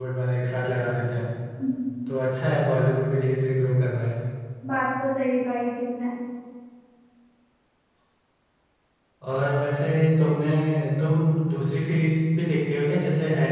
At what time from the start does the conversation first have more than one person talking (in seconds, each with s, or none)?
none